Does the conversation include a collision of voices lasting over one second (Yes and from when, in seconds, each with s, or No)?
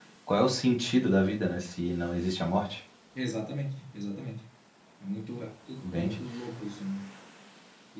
No